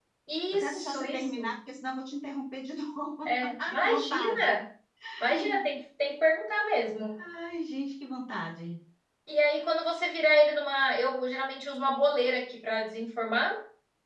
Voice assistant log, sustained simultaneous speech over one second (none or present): present